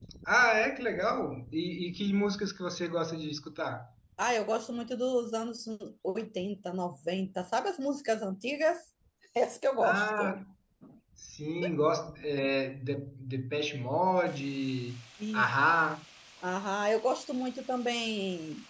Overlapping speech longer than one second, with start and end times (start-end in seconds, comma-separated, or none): none